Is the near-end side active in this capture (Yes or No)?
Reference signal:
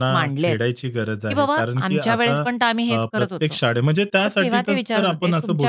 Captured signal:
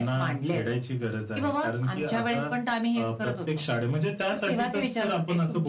No